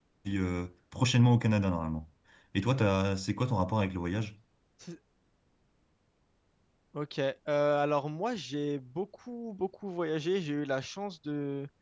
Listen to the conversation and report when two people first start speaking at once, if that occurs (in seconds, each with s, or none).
none